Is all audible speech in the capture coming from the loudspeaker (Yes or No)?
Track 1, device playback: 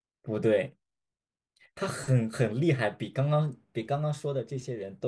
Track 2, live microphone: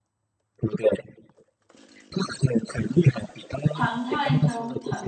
No